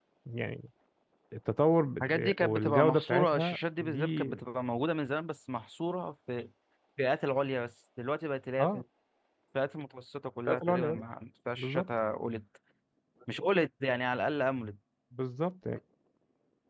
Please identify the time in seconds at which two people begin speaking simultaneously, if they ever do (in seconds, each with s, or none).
2.0 s